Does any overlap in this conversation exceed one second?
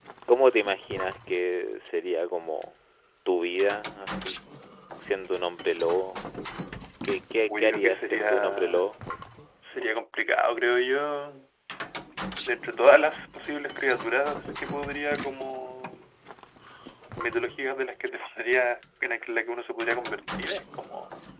Yes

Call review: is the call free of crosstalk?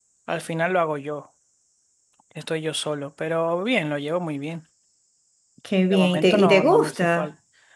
No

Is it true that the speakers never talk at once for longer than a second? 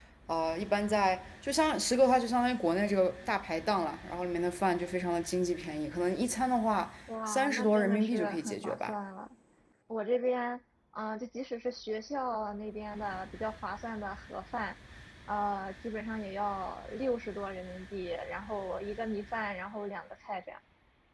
No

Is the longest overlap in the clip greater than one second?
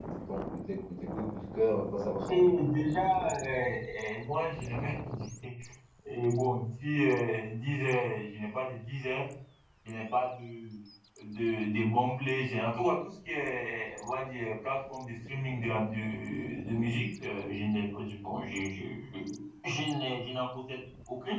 No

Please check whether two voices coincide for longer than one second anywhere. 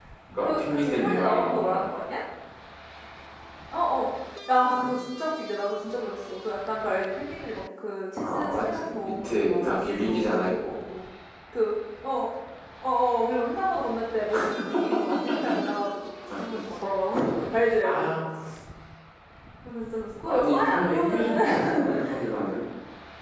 Yes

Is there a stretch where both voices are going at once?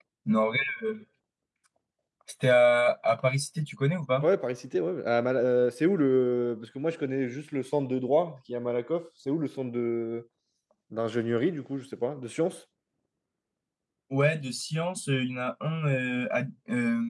No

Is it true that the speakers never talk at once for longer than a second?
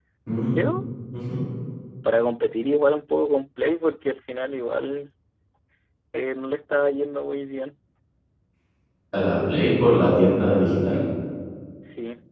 Yes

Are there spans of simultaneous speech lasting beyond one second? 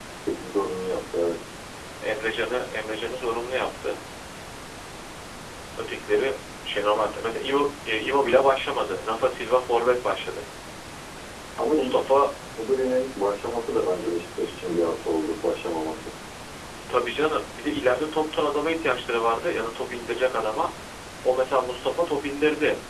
No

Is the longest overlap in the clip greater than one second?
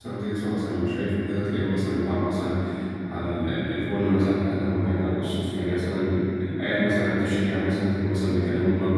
No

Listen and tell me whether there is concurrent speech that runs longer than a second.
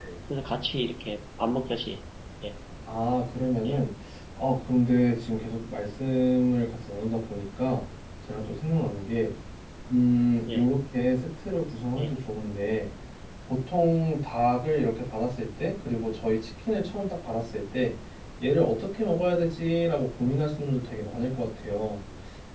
No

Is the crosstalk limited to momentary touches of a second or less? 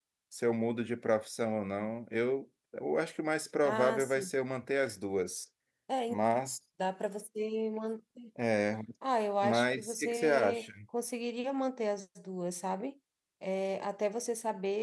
No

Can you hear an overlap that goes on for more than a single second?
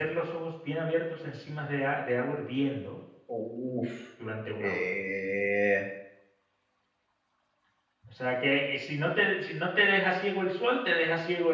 No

